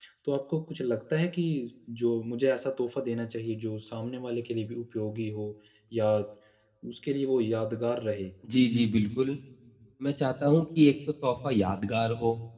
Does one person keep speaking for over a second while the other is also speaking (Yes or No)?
No